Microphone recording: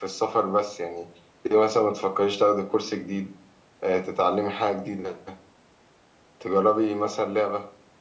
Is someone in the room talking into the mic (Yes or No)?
Yes